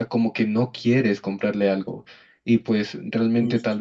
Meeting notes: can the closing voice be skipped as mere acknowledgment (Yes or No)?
Yes